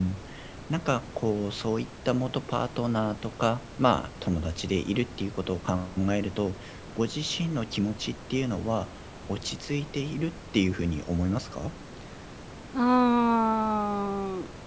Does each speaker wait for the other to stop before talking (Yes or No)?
Yes